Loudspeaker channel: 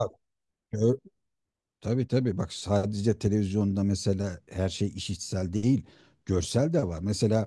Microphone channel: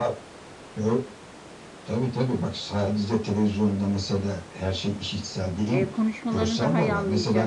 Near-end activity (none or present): present